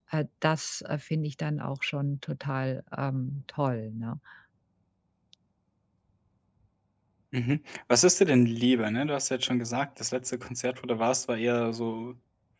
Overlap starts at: none

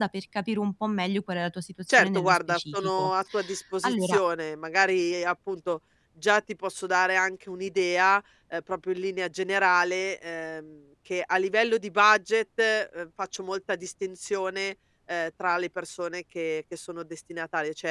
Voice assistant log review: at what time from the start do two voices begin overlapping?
1.9 s

